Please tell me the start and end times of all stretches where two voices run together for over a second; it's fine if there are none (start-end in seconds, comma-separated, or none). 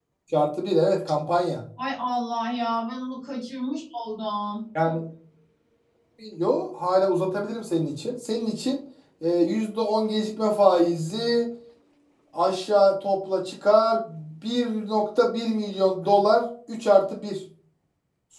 none